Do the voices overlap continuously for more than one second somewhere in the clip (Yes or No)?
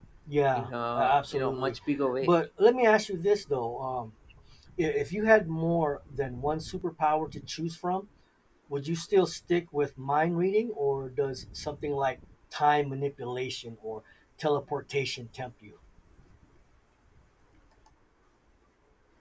Yes